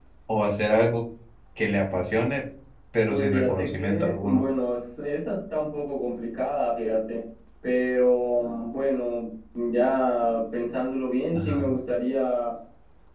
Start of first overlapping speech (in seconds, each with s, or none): 3.1 s